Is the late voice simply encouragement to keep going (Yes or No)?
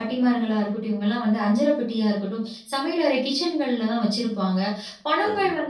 Yes